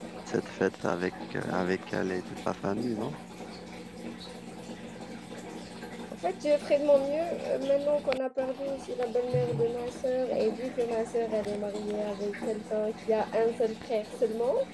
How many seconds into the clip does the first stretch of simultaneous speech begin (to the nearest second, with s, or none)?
none